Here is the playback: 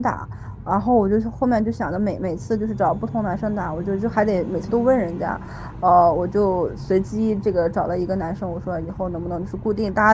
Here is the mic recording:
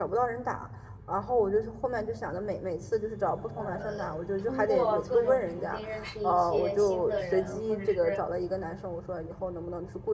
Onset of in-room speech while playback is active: 4 s

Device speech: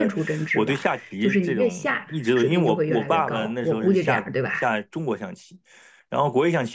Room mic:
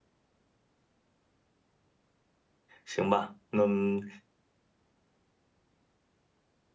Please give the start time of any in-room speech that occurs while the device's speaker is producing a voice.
3 s

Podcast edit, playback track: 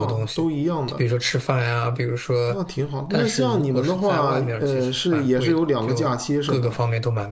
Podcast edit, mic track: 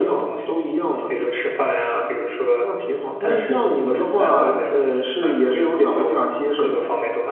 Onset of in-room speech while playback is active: 6 s

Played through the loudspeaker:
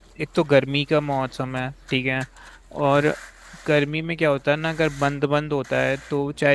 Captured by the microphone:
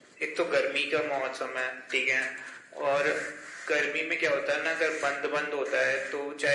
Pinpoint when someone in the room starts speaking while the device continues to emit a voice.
none

